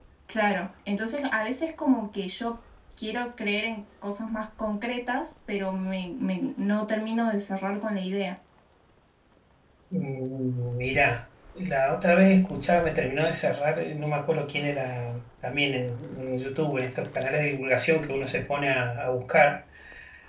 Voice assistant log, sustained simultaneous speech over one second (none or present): none